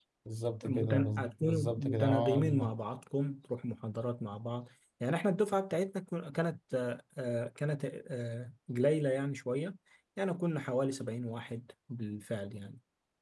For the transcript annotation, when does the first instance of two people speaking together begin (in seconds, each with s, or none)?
0.6 s